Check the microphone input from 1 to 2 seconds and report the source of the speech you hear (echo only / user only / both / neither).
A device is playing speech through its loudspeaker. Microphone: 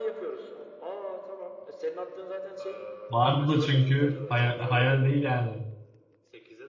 echo only